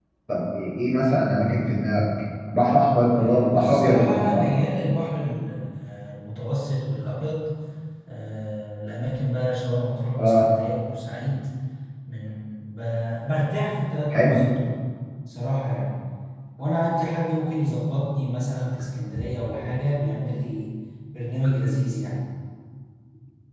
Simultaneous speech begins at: 3.1 s

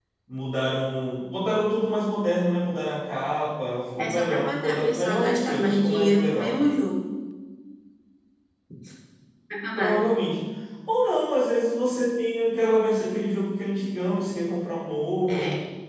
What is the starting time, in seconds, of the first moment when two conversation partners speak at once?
4.0 s

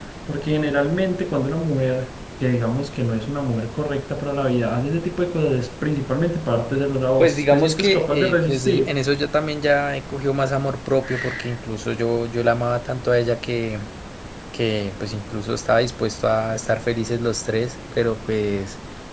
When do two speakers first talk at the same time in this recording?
7.2 s

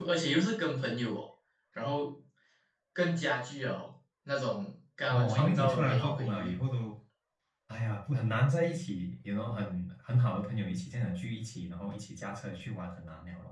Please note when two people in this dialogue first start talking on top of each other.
5.1 s

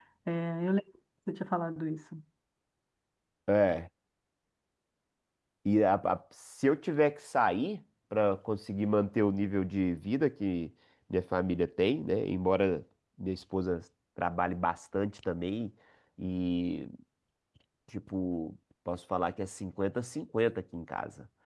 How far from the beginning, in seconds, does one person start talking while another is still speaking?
none

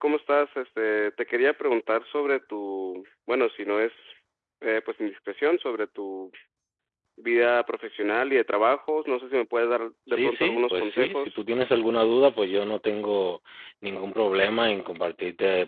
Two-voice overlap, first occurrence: 10.1 s

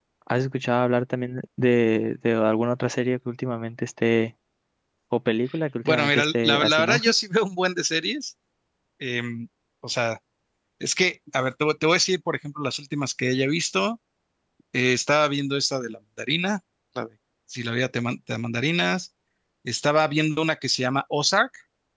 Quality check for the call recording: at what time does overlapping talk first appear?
5.8 s

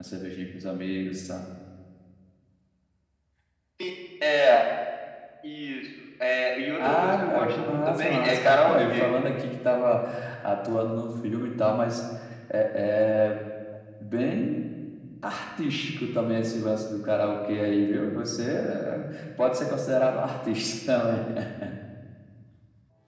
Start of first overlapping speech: 6.8 s

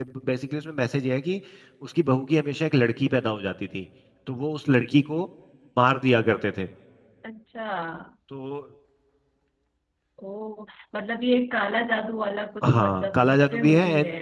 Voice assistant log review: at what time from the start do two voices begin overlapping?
12.6 s

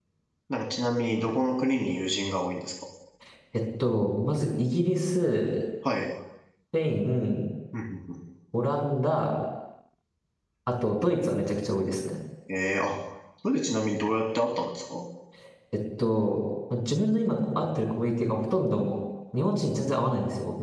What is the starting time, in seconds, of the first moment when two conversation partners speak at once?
none

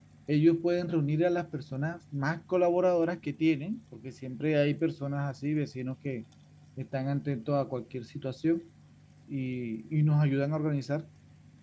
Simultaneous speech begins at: none

